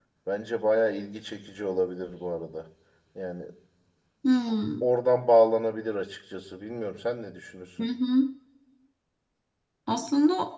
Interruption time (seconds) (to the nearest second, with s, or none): none